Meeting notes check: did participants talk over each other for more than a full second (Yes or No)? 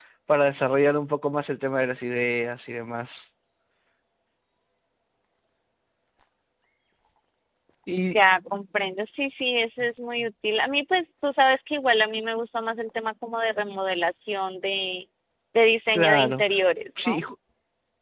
No